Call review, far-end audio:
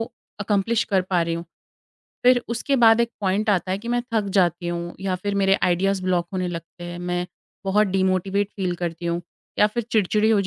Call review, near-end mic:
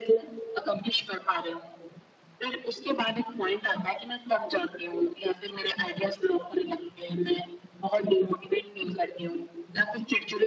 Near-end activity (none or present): none